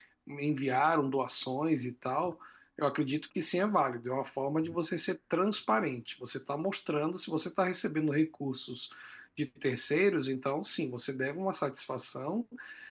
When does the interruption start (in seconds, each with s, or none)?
none